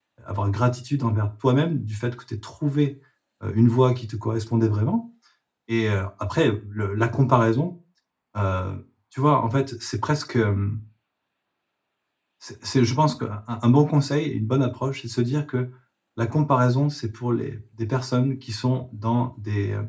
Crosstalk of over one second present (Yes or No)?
No